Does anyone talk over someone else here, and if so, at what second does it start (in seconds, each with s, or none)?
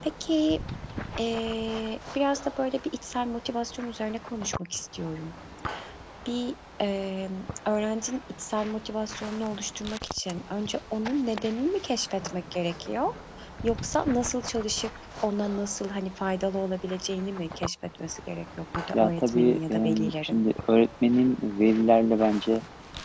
18.9 s